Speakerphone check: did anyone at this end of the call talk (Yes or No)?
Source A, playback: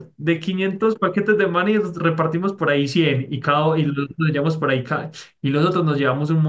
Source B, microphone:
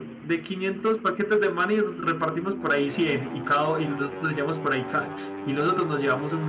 No